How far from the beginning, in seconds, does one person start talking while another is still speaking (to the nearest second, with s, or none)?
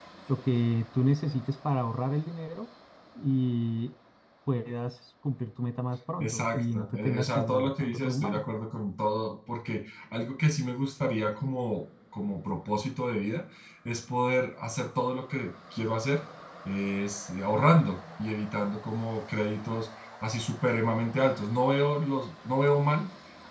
6 s